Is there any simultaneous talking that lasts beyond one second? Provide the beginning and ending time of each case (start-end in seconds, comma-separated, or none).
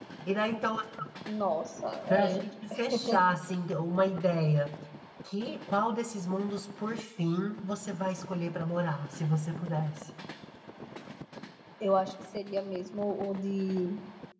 none